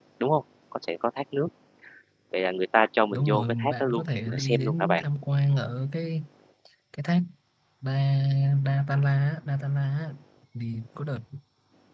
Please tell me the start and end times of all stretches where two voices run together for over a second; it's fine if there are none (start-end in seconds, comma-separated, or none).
3.1-5.0